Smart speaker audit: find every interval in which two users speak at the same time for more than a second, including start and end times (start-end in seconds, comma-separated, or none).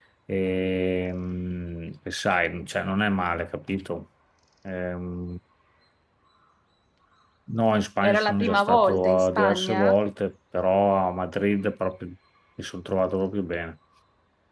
8.0-9.9